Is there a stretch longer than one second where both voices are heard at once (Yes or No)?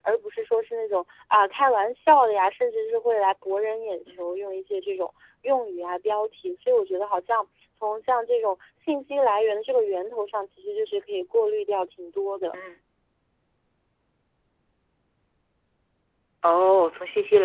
No